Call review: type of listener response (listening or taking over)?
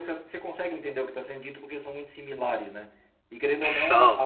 listening